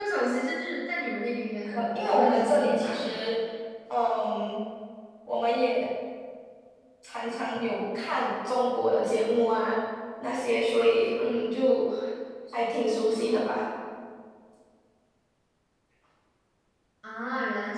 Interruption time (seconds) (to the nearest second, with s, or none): 2 s